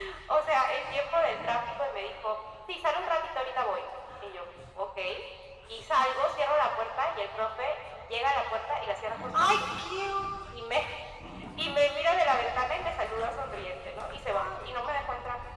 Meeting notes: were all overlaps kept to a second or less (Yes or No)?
Yes